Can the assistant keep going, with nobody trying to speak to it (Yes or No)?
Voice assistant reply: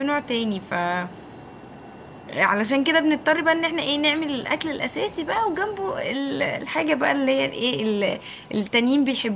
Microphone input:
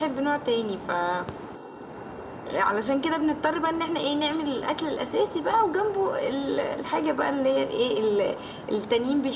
Yes